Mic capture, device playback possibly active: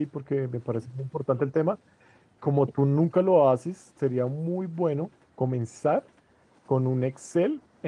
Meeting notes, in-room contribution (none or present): present